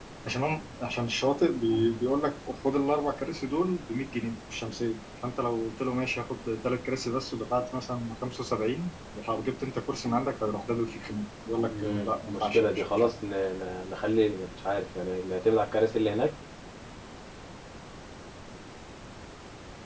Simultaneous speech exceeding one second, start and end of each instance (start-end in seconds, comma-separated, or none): 11.7-13.1